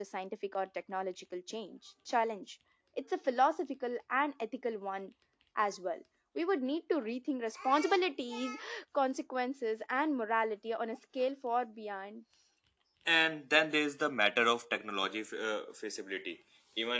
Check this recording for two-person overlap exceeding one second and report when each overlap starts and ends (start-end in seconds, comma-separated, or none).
none